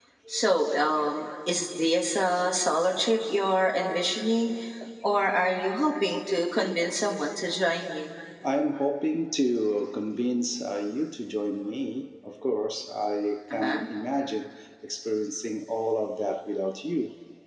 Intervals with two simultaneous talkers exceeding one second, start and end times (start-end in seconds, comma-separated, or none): none